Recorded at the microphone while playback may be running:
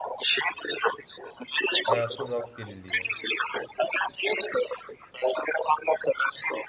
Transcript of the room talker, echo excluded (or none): Hayatın rastgeleliği yani.